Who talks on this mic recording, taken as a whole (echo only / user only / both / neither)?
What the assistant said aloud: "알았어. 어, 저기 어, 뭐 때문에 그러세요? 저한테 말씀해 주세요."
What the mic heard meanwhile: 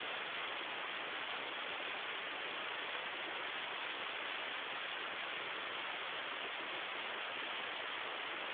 neither